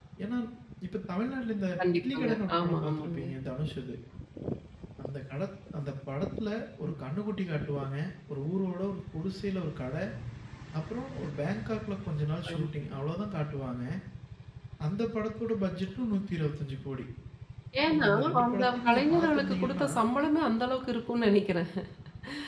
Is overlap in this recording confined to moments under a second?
No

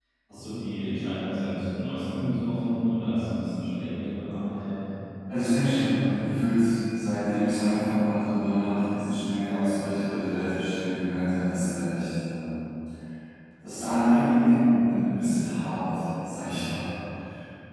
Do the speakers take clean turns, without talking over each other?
Yes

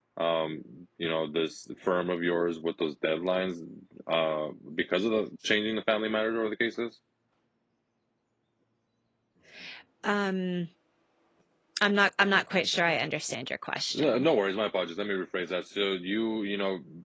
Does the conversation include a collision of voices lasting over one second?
No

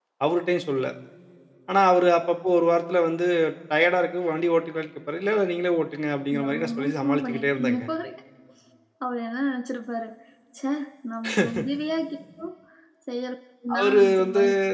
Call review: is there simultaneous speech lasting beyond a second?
Yes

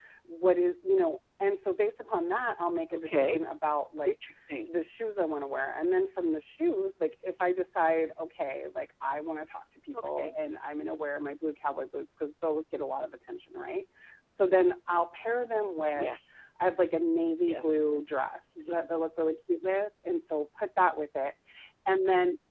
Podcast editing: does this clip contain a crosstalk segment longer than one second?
No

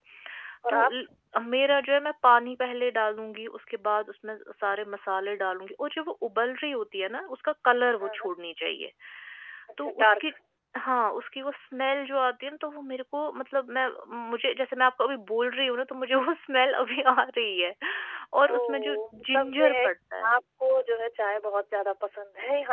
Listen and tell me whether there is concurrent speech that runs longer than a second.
Yes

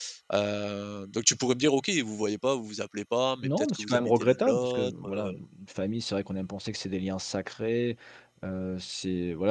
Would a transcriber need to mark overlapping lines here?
Yes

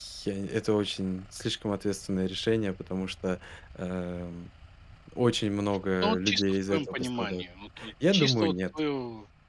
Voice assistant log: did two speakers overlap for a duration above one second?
Yes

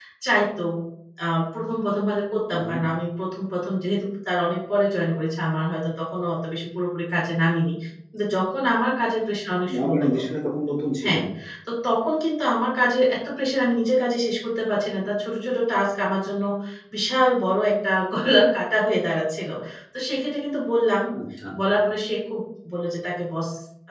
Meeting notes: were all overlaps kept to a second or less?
Yes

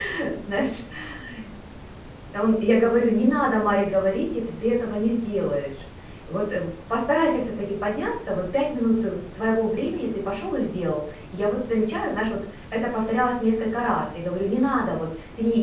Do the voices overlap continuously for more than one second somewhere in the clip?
No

